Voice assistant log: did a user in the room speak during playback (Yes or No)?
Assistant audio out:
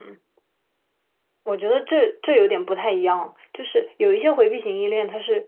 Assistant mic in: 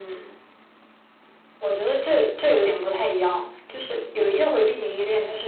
No